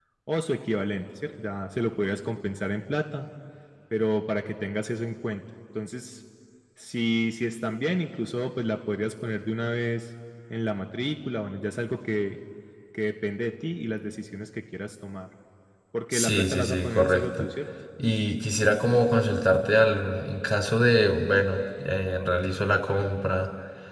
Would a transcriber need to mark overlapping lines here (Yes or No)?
Yes